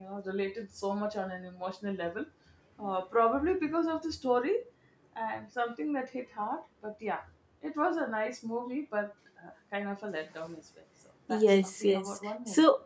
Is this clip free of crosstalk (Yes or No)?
No